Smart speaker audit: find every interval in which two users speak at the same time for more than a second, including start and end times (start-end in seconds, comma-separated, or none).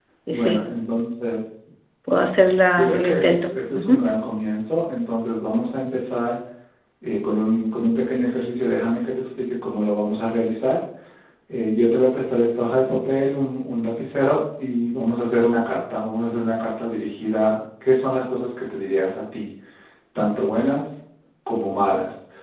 2.7-4.0